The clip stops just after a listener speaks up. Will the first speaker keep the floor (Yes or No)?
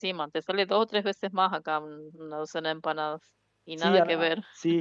No